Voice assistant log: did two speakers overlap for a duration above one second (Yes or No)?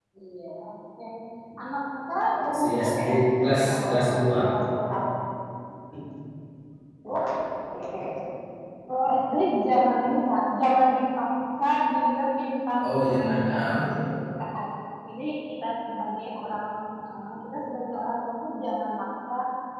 Yes